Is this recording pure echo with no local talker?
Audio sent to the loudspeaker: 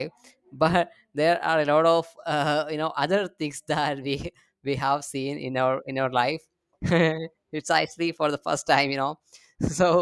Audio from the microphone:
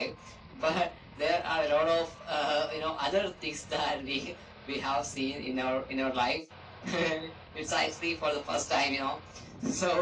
Yes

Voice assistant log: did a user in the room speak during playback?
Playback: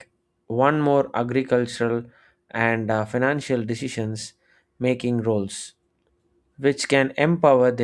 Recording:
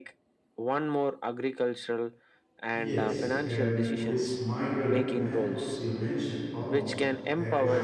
Yes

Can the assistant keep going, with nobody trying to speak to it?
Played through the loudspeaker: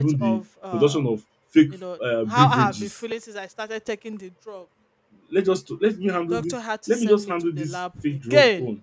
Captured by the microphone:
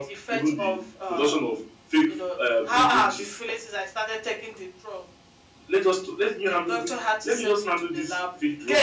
Yes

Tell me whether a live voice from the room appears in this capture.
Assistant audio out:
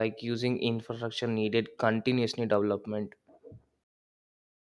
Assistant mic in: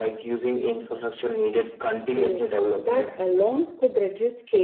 Yes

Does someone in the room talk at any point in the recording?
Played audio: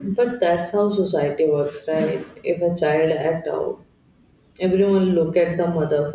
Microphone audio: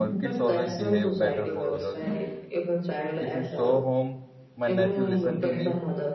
Yes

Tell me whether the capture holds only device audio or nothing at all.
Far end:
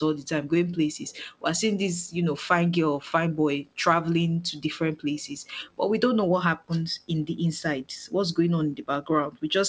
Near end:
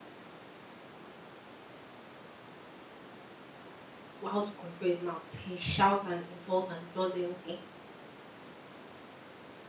No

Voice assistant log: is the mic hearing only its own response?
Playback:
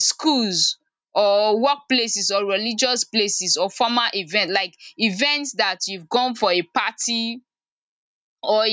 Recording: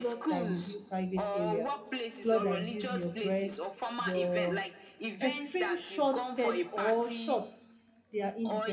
No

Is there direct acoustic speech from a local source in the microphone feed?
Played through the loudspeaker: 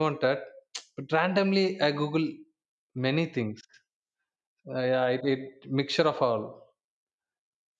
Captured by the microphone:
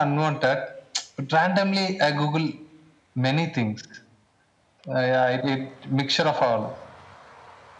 No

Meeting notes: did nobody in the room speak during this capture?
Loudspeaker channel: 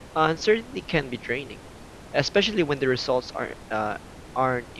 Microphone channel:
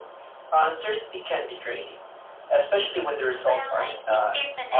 No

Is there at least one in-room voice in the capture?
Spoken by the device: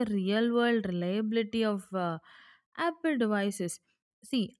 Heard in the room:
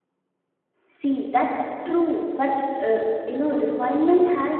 Yes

